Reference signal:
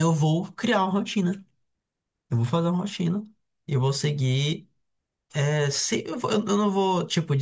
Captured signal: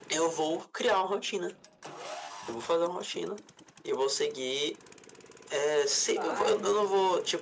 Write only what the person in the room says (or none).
bairro, assim,